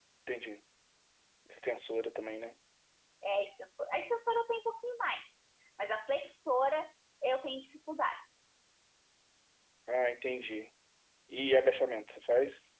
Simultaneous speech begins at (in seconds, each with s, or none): none